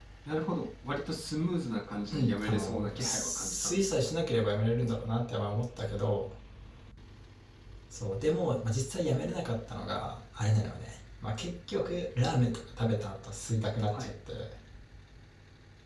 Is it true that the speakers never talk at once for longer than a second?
No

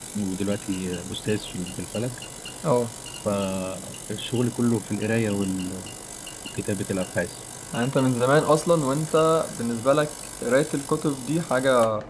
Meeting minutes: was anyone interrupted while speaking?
No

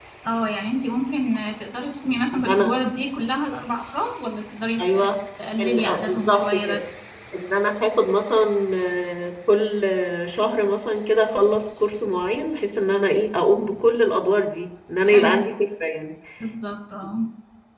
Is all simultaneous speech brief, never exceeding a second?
No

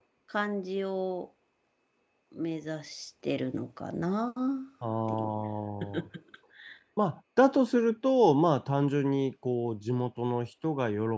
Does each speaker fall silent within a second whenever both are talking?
Yes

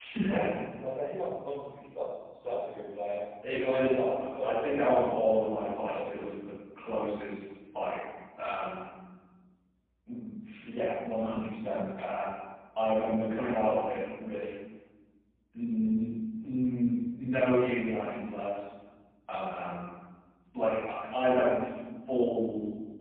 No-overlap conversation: No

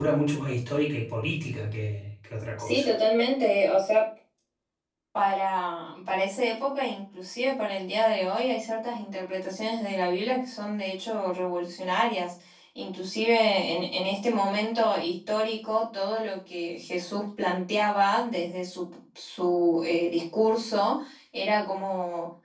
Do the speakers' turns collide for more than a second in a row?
No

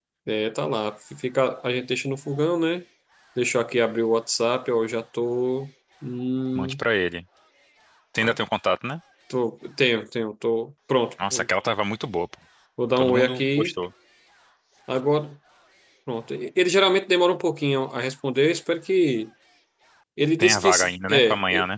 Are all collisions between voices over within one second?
No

